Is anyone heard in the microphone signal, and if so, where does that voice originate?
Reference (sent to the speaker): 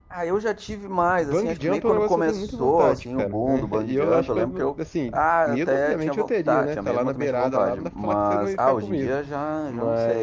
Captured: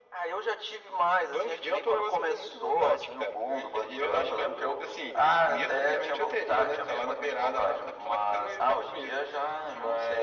echo only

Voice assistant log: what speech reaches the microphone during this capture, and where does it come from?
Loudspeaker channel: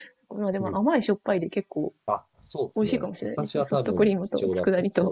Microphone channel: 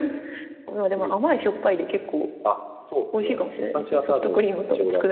echo only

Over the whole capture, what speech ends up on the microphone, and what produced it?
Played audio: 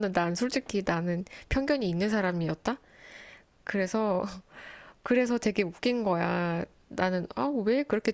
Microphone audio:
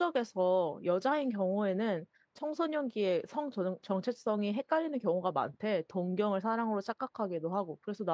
user only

